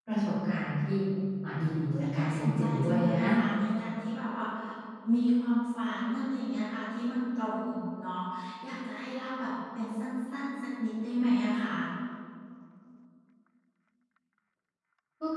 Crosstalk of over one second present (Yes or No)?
Yes